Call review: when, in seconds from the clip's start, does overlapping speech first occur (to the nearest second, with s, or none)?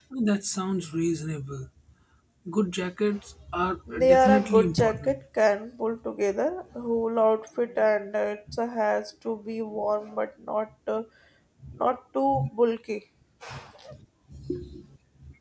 4 s